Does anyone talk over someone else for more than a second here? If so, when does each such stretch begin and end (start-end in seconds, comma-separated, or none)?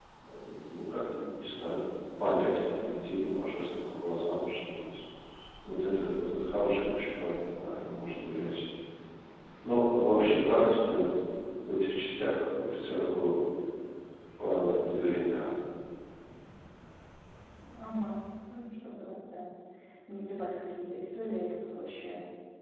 none